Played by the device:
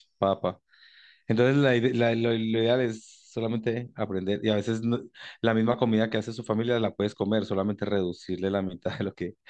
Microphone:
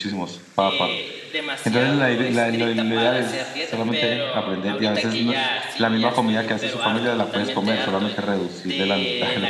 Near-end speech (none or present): present